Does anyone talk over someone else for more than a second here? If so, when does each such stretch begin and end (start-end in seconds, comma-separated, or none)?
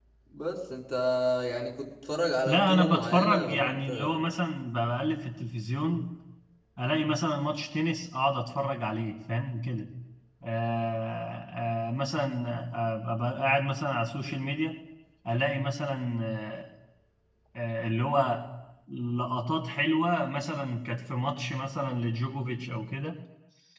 2.5-4.2